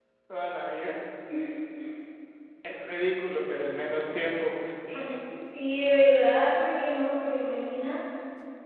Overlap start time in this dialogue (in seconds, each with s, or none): none